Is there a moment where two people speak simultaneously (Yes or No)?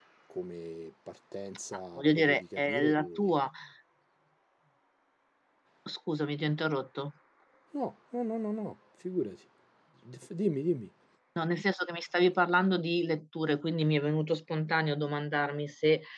Yes